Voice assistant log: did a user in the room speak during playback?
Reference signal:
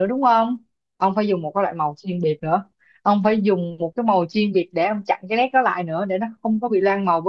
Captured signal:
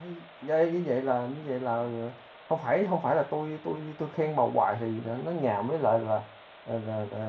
Yes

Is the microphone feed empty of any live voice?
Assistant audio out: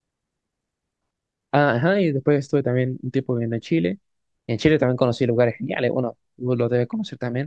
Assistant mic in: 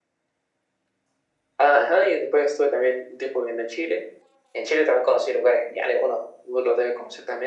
Yes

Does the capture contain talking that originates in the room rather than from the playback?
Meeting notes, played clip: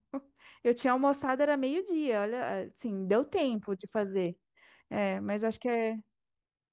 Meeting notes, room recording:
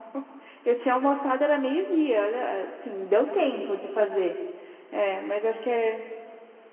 No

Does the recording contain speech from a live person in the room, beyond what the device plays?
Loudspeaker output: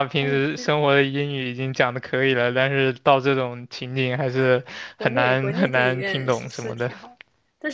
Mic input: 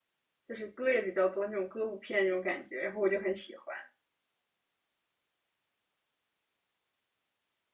Yes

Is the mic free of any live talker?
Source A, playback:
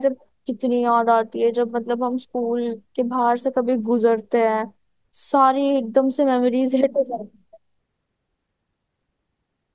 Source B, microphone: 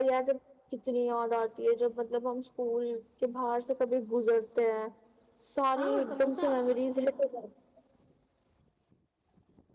No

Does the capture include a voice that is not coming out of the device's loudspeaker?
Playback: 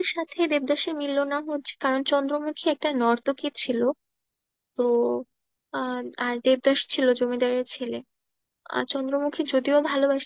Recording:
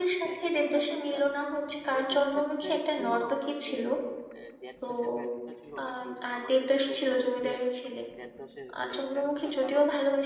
Yes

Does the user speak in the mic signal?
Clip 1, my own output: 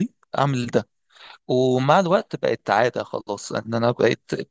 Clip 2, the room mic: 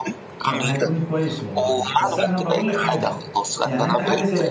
Yes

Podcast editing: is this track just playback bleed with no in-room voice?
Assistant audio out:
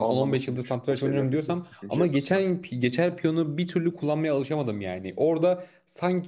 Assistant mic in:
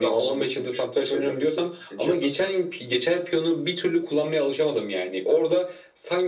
Yes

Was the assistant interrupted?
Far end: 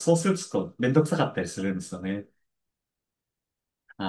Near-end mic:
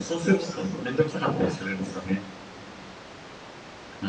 No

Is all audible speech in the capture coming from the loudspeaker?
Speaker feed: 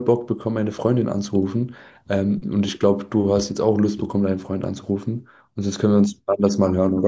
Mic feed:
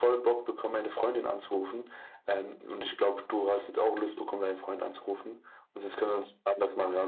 Yes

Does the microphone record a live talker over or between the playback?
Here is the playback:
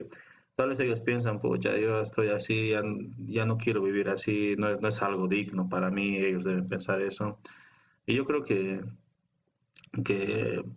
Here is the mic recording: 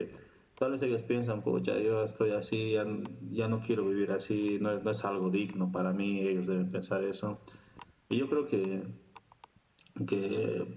No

